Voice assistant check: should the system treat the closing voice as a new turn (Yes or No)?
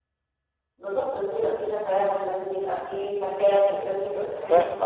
Yes